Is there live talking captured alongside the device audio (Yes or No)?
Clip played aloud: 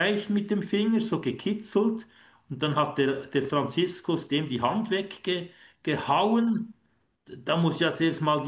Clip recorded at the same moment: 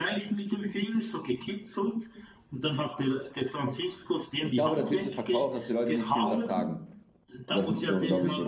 Yes